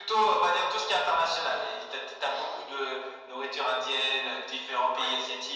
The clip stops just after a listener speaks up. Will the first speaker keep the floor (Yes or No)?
Yes